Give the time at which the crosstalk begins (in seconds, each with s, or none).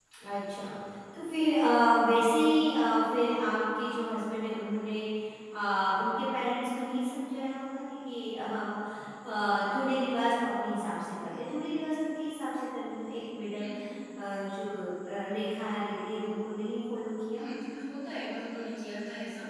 none